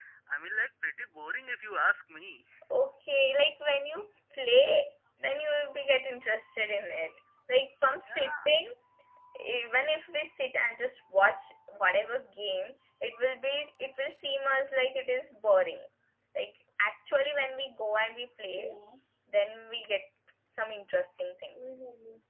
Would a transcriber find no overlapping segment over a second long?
Yes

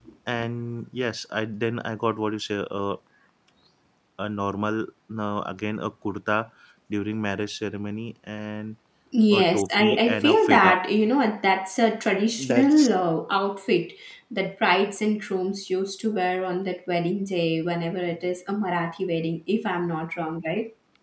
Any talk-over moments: Yes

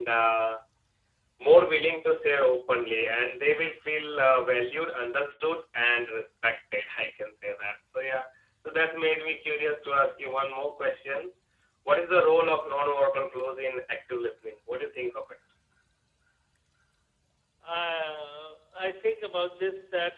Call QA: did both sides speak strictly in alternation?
Yes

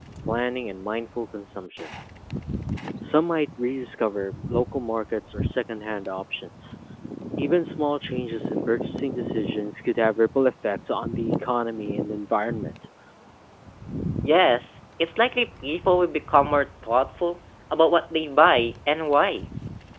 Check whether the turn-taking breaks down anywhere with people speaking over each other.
No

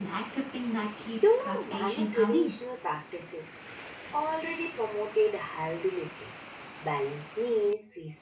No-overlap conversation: No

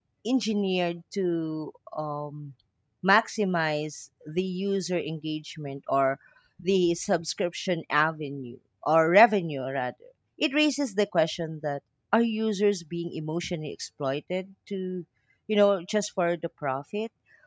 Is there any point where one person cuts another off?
No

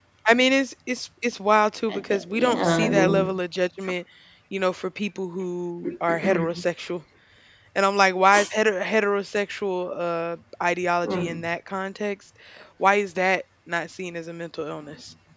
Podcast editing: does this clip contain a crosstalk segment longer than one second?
Yes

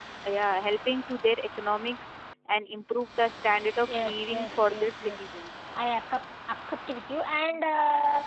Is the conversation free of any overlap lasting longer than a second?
No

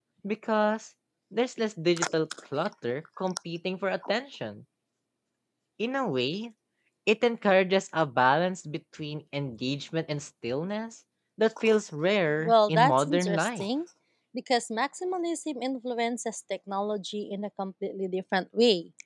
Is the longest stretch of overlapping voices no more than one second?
No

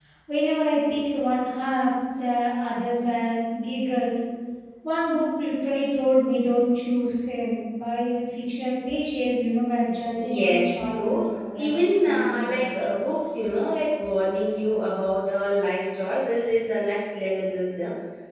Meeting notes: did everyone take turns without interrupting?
No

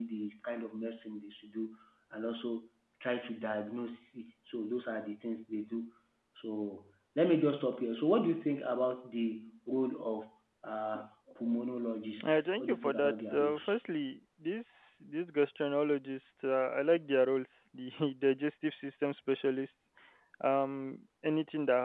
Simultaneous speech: Yes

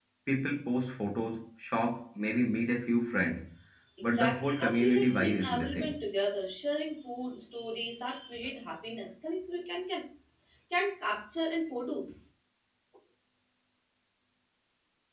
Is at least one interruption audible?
Yes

